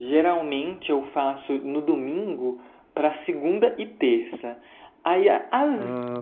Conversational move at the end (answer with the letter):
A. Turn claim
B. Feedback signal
B